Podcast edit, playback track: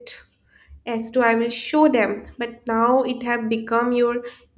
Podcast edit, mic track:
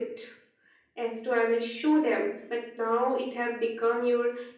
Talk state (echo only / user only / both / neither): echo only